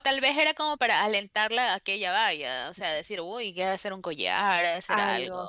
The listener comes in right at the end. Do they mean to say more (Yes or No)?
Yes